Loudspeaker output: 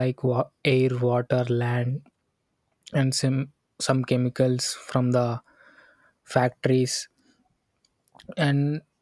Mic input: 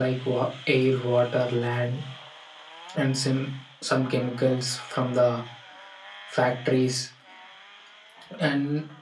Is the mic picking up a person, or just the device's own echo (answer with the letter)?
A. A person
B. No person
B